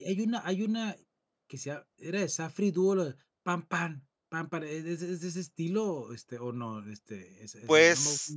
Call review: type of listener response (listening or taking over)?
taking over